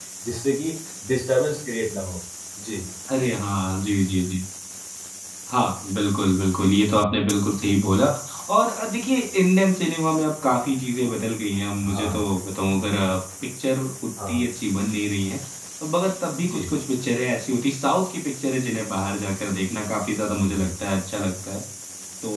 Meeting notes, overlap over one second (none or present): none